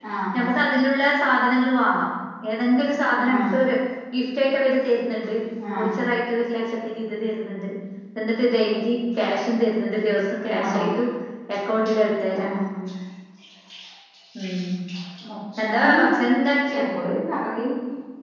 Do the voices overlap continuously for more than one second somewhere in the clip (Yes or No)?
No